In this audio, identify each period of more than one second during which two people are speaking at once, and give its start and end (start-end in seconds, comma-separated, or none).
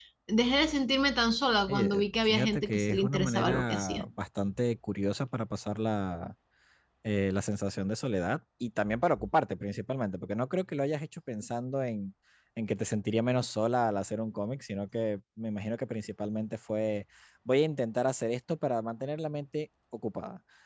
1.7-4.0